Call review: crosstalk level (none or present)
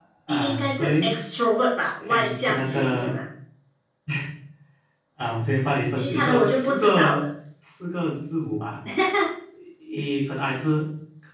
present